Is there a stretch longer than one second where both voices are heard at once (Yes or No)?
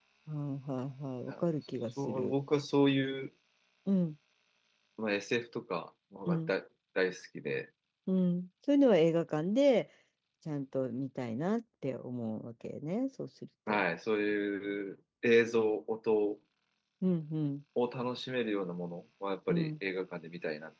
No